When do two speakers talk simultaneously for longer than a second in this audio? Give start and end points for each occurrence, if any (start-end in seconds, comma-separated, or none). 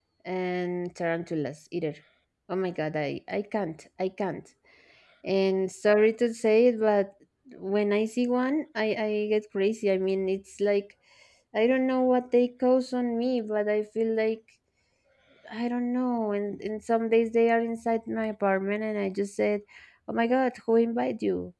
none